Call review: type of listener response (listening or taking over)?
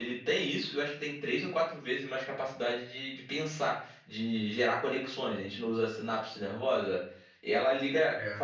listening